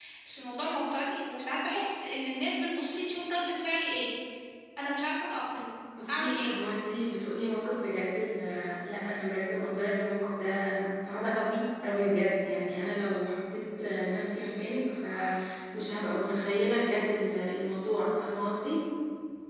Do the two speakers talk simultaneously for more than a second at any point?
No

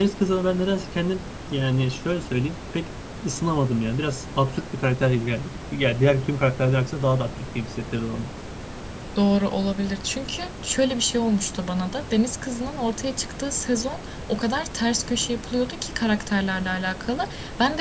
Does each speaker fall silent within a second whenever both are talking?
Yes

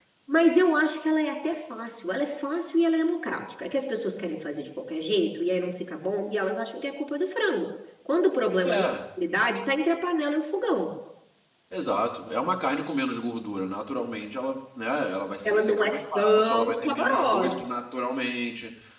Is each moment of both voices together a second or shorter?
No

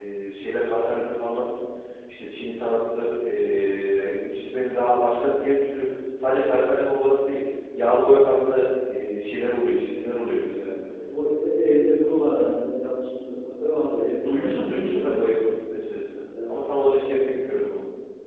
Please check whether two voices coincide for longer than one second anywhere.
Yes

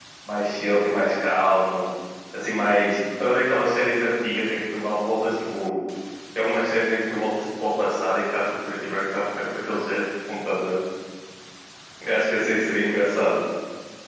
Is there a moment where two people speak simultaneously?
No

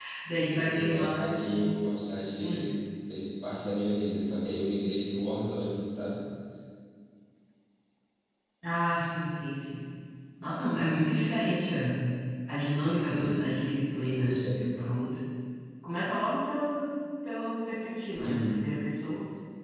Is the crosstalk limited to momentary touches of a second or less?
No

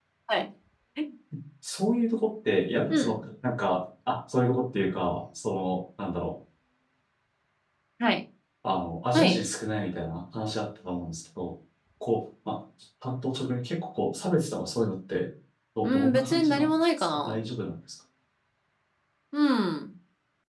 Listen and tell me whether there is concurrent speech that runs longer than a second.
Yes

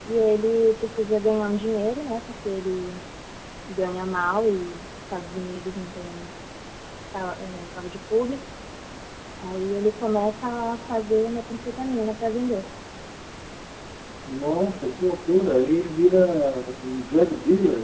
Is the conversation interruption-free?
Yes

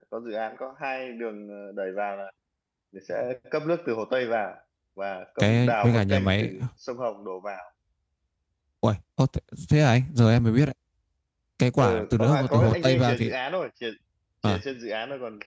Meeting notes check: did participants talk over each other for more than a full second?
Yes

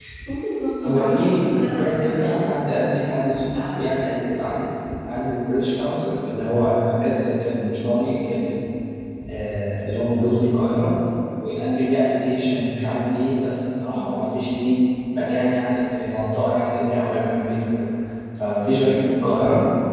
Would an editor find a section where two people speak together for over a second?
Yes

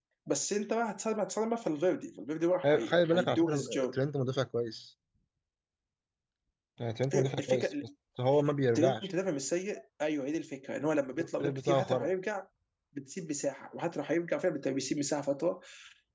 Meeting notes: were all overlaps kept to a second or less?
No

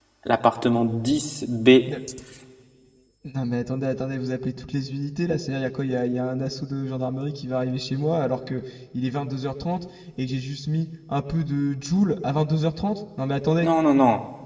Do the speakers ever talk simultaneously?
No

